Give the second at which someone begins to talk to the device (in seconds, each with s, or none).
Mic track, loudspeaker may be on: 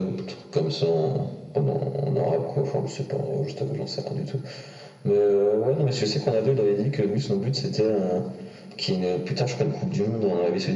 none